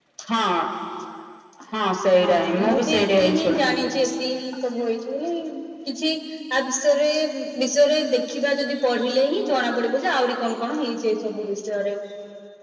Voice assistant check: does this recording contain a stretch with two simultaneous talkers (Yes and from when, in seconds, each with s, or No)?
Yes, from 2.2 s